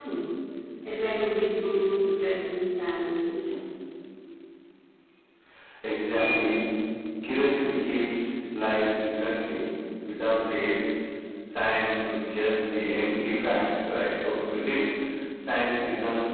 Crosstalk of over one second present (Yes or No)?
No